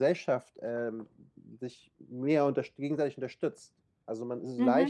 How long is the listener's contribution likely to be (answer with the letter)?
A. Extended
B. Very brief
B